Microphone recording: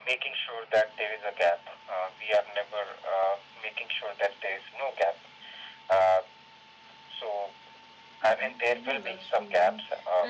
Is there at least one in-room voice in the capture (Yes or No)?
Yes